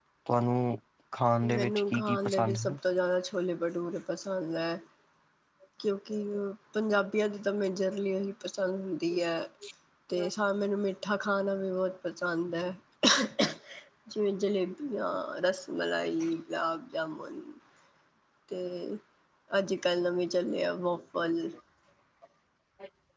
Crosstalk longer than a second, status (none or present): present